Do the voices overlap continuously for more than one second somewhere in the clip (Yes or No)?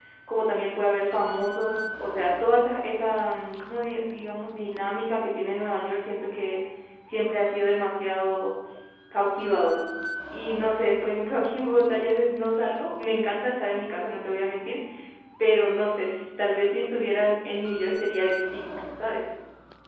No